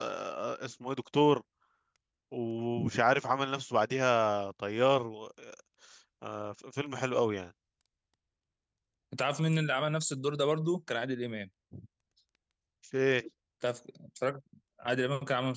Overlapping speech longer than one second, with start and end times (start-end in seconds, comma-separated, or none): none